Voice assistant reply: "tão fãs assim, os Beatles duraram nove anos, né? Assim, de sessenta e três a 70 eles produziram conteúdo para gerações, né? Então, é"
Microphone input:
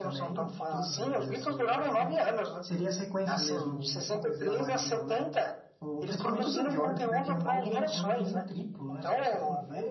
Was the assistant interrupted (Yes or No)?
Yes